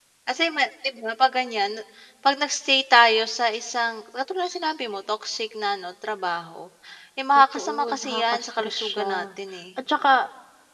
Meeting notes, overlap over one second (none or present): present